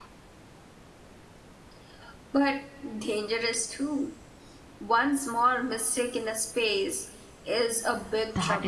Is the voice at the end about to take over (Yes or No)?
Yes